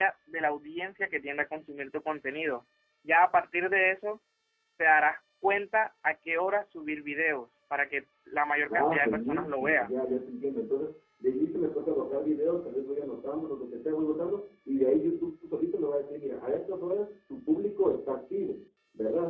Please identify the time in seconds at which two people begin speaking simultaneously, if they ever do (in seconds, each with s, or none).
8.7 s